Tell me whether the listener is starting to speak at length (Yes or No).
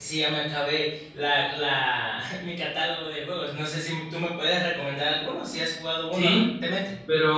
Yes